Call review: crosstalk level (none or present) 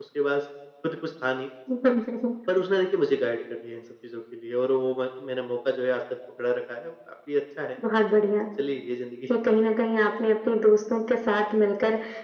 none